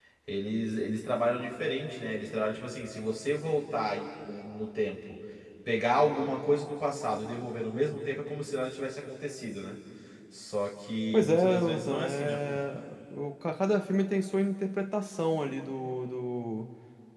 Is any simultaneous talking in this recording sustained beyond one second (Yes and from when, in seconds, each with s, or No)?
Yes, from 11.1 s